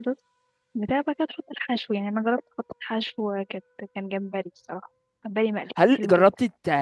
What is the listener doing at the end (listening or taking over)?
taking over